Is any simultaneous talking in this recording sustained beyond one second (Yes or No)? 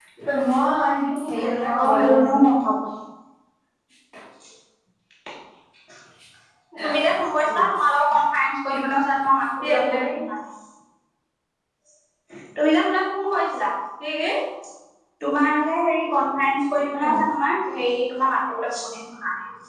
Yes